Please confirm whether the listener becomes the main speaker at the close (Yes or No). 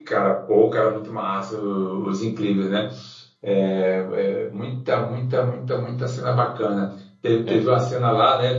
No